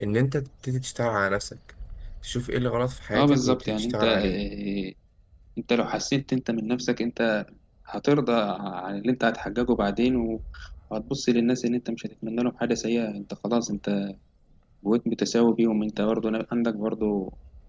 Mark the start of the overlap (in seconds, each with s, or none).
3.1 s